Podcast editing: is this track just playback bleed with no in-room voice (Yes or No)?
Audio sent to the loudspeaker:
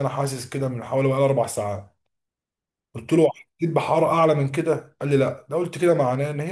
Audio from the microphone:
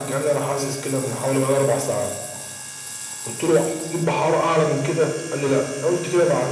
Yes